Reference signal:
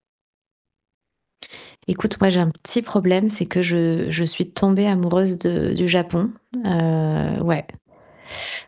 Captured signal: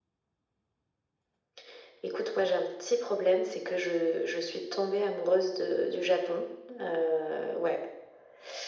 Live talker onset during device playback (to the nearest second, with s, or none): none